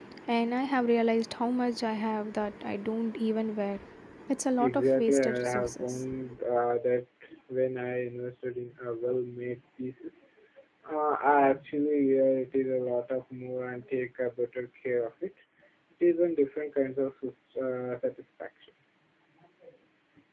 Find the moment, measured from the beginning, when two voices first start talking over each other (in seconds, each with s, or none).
4.6 s